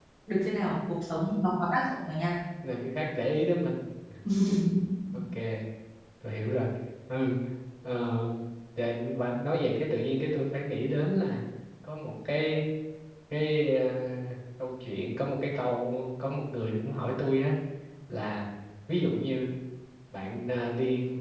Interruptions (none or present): none